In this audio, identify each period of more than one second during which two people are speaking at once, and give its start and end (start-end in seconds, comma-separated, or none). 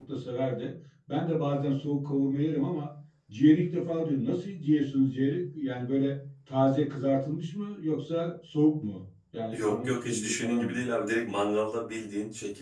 9.5-10.8